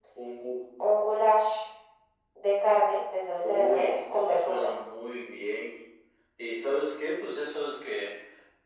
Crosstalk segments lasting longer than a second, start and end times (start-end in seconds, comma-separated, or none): 3.4-4.7